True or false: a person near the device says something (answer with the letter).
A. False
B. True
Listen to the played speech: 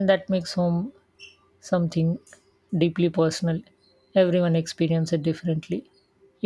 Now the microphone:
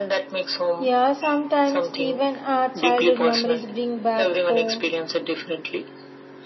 B